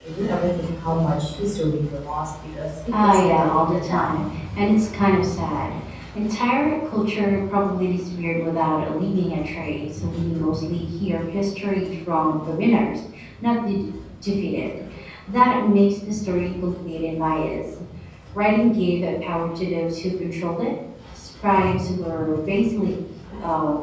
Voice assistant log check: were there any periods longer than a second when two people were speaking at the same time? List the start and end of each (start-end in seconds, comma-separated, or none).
2.9-4.2